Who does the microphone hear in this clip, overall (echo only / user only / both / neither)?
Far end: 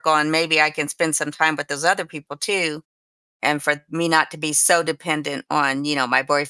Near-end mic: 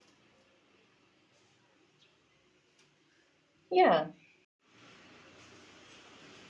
user only